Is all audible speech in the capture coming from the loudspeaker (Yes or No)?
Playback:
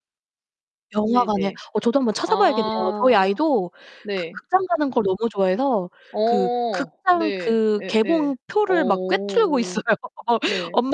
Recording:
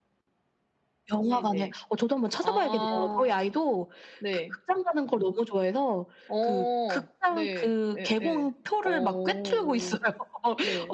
Yes